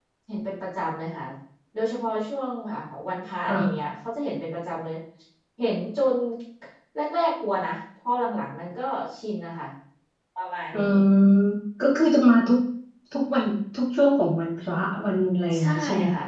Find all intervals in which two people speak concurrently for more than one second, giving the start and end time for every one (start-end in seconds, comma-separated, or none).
none